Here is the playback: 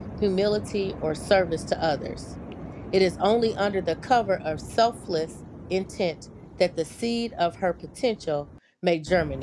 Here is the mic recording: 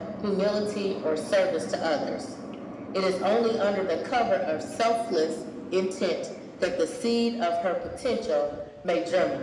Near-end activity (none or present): none